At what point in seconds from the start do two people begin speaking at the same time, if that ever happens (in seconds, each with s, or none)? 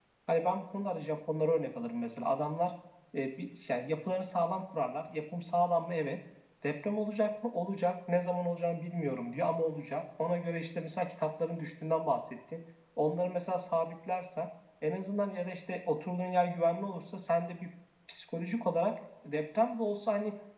none